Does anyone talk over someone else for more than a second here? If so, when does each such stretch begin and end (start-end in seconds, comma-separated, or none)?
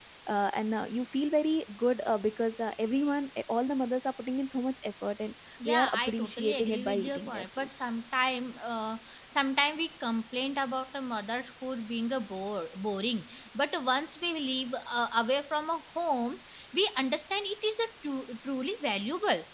5.7-7.7